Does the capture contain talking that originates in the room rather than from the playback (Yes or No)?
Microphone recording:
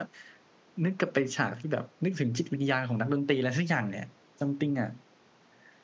Yes